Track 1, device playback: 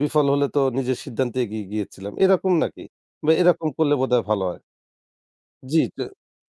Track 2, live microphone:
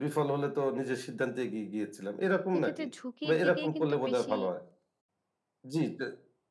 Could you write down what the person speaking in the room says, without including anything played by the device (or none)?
সেক্ষেত্রে ঝুঁকির দিকেই কিন্তু বেশি